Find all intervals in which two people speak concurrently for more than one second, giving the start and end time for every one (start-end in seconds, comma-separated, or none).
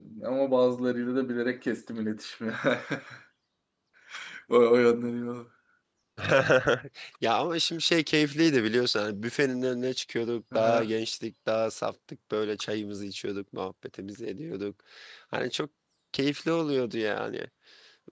none